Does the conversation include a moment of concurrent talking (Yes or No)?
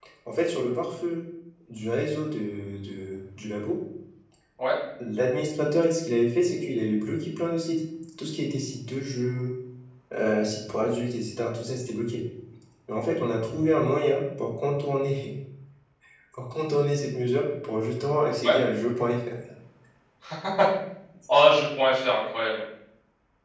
No